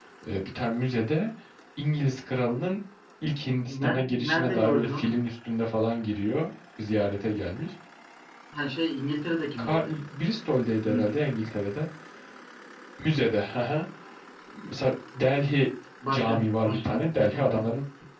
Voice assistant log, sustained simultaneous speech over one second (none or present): present